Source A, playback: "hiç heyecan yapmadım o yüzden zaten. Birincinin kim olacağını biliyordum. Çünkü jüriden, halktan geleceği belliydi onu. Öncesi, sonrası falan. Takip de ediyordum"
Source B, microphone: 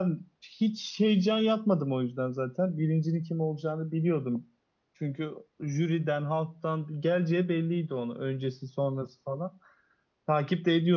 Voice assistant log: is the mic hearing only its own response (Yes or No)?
Yes